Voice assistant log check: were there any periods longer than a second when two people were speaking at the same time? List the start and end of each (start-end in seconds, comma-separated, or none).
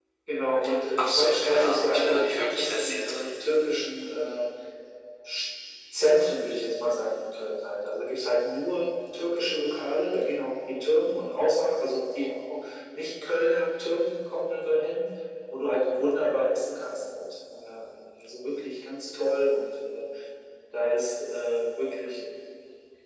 1.0-3.2